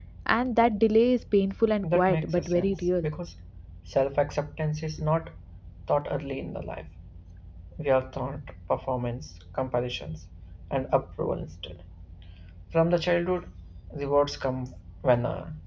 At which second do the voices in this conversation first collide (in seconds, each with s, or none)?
1.8 s